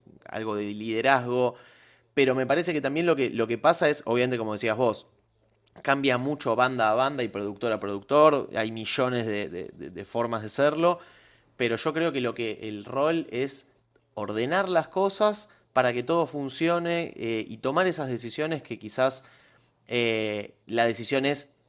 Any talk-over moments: No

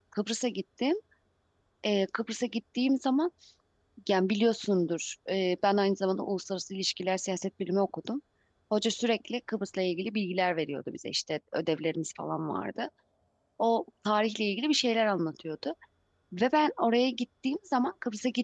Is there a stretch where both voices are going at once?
No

